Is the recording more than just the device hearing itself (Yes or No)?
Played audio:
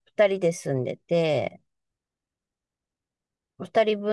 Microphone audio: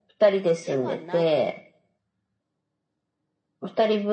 Yes